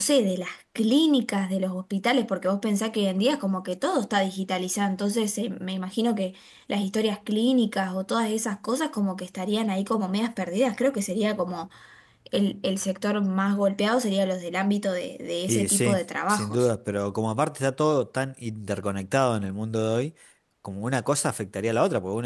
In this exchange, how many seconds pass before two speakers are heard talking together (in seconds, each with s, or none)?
15.5 s